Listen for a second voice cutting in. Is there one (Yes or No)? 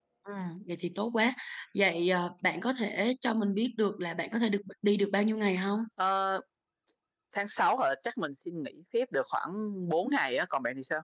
No